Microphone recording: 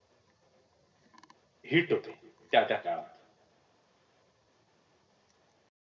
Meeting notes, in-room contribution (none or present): present